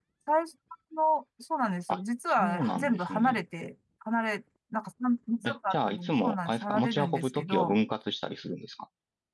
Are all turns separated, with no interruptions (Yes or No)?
No